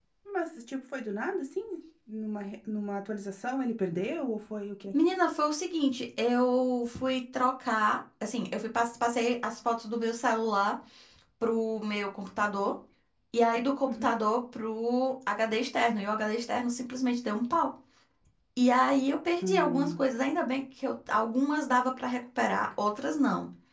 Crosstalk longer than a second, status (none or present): none